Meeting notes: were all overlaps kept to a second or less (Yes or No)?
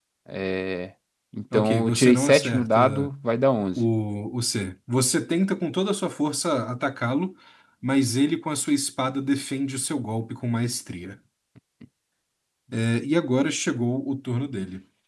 No